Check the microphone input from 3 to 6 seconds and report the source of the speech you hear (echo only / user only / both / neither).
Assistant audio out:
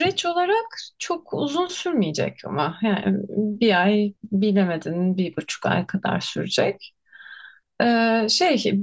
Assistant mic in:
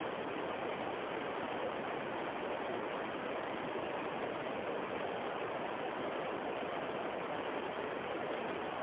neither